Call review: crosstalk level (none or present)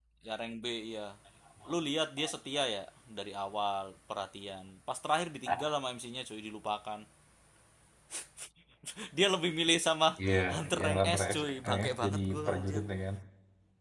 present